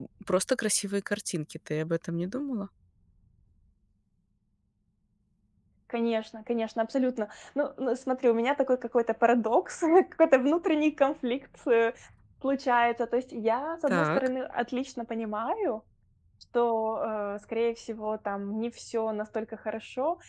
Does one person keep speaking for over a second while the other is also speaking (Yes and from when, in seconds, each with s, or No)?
No